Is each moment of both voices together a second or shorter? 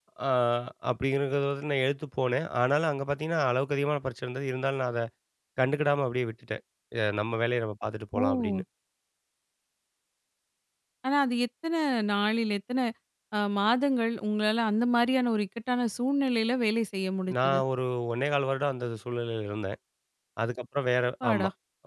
Yes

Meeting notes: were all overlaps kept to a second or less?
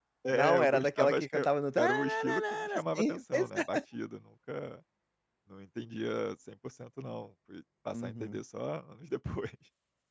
No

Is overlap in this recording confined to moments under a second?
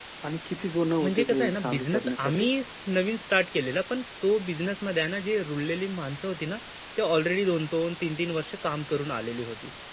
No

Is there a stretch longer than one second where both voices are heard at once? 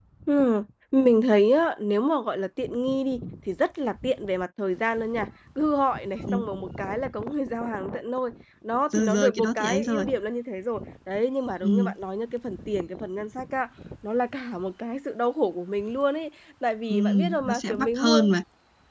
Yes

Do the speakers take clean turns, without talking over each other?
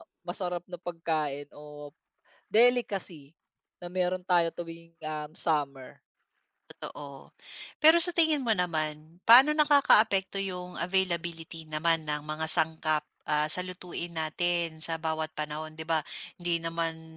Yes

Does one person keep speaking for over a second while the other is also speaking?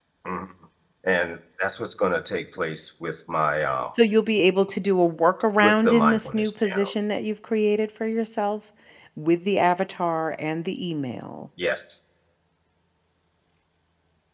Yes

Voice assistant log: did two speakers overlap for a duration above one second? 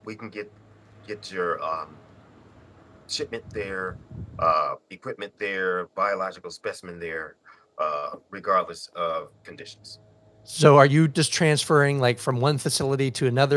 No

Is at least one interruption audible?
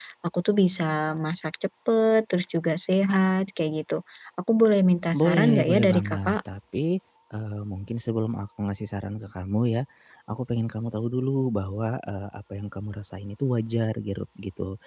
Yes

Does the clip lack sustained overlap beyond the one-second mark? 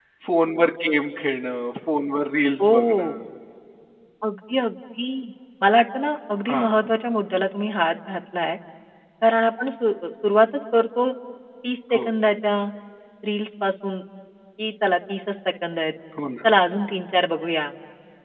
Yes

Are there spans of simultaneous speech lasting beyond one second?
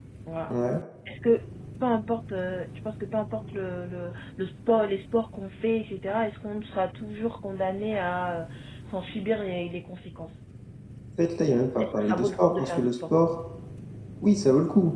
Yes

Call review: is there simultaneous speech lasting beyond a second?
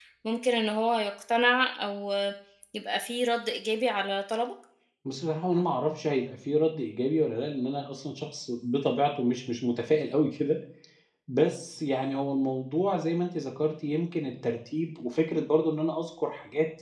No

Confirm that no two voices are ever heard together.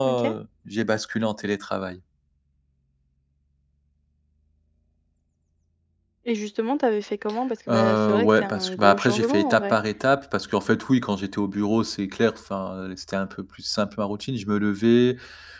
No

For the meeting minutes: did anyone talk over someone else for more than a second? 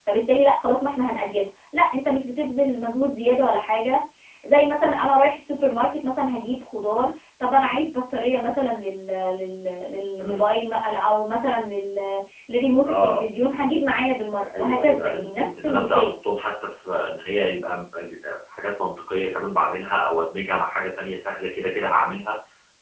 Yes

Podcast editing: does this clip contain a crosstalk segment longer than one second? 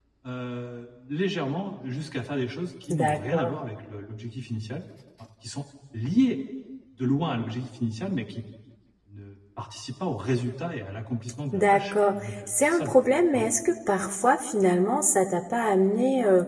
Yes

